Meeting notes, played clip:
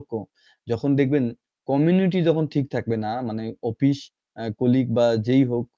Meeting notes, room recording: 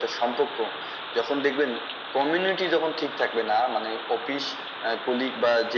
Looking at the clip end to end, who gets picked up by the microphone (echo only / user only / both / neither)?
echo only